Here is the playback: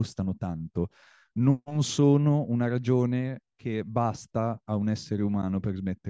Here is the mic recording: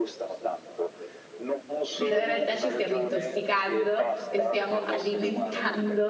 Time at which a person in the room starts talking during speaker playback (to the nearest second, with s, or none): 2 s